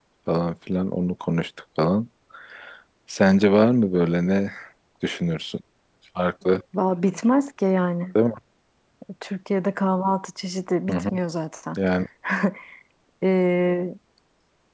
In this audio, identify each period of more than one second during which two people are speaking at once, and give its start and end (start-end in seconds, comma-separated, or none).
none